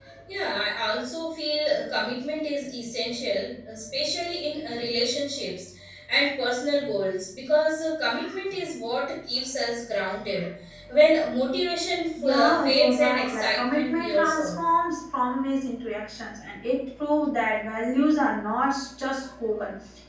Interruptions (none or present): present